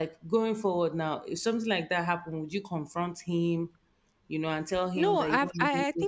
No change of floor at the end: No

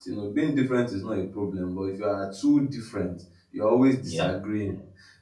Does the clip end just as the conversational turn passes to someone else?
No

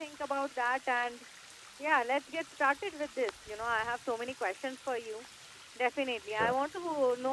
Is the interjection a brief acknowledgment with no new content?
Yes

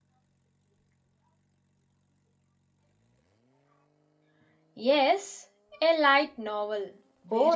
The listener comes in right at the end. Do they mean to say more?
Yes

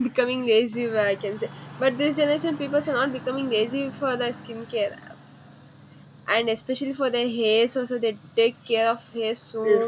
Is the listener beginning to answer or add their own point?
Yes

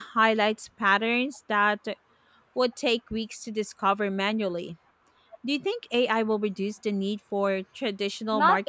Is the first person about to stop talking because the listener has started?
Yes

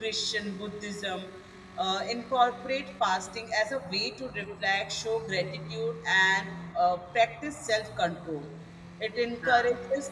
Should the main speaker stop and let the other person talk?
No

